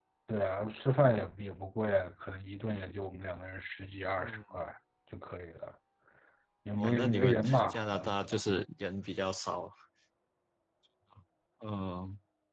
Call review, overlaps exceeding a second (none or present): present